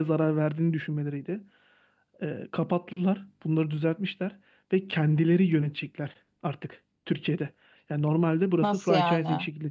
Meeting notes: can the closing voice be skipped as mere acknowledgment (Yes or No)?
Yes